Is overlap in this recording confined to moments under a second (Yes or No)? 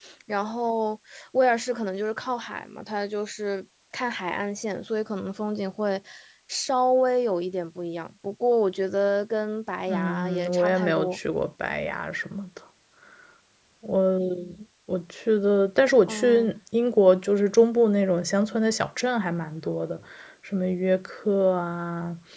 No